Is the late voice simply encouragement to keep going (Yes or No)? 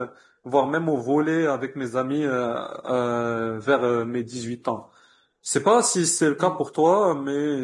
Yes